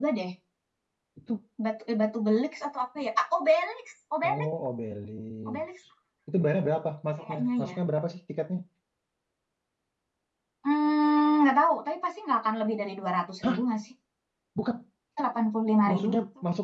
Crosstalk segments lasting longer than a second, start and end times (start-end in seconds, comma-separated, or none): none